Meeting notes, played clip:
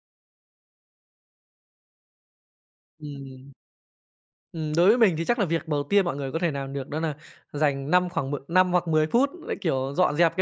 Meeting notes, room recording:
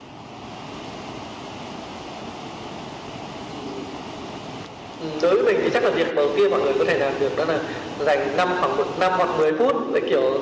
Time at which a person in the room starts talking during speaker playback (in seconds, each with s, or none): none